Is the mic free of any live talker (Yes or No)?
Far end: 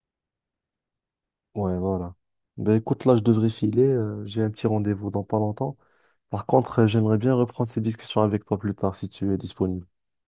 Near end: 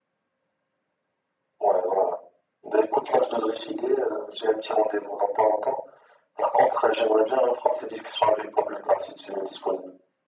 Yes